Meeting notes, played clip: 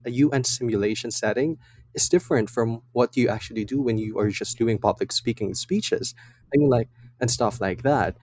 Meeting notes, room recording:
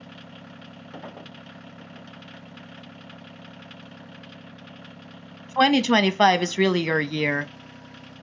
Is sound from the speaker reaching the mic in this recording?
No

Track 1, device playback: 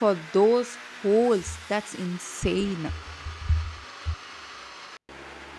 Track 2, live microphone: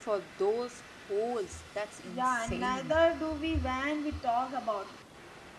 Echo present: Yes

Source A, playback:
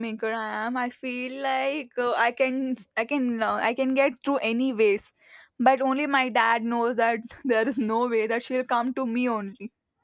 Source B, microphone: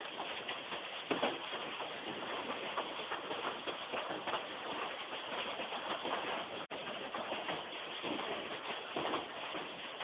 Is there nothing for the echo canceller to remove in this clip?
Yes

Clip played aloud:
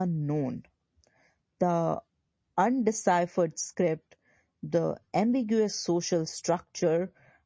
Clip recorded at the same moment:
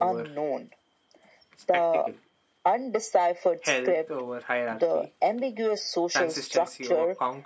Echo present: Yes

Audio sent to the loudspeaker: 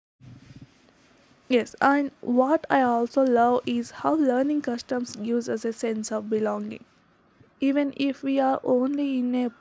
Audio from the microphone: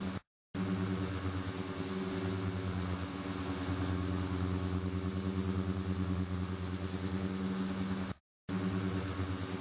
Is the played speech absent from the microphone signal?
Yes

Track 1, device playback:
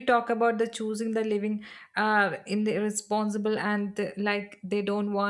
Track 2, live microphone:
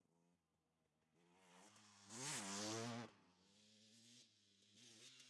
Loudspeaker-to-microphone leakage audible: No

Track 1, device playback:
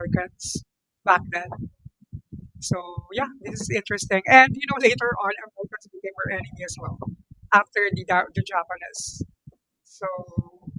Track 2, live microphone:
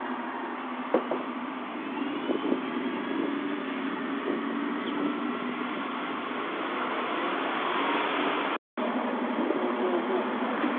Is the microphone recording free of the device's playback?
Yes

